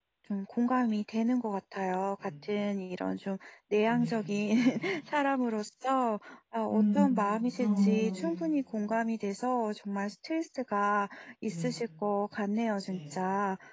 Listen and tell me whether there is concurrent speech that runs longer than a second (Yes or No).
Yes